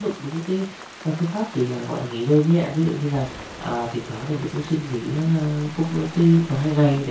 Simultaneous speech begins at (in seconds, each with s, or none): none